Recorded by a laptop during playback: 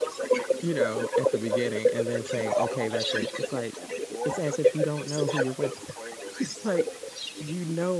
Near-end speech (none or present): present